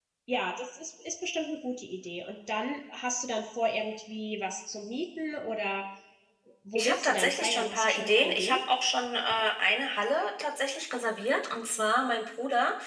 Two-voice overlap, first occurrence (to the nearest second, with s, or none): 7 s